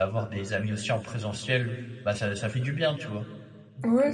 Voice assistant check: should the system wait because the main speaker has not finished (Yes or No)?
No